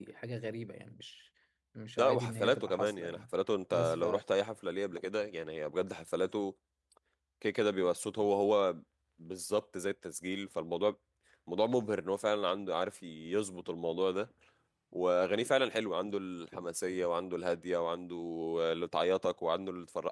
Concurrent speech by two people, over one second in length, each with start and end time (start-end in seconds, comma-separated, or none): 2.0-3.3